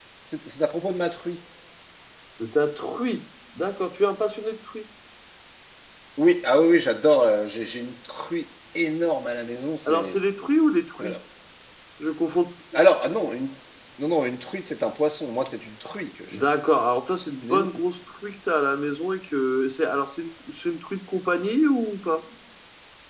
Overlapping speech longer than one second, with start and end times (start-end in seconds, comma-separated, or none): none